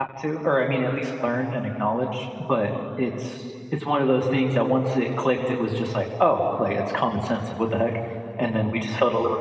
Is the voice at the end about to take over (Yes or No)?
No